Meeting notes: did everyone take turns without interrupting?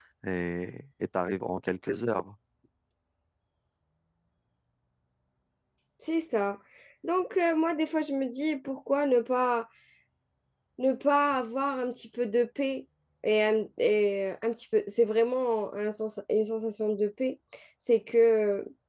Yes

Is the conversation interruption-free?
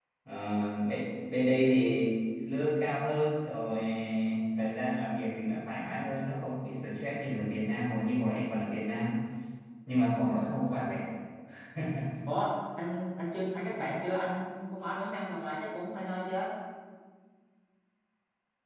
Yes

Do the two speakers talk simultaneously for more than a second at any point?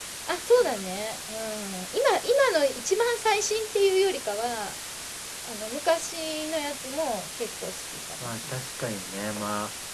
No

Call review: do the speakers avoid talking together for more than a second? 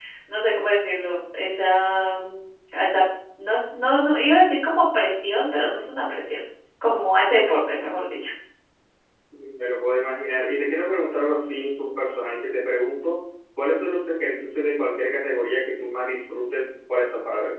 Yes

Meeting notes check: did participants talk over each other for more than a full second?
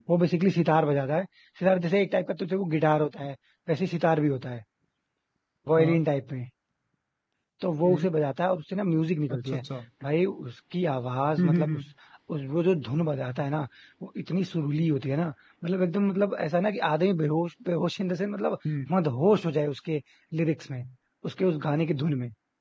No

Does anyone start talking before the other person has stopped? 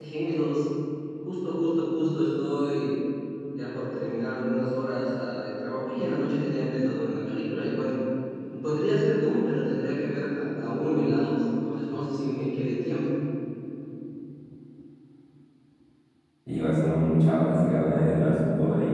No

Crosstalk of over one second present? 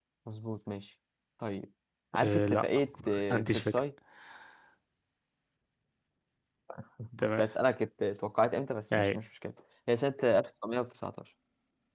Yes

